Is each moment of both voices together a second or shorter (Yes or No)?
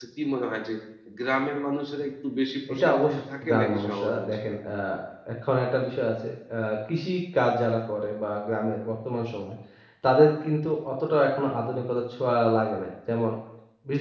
No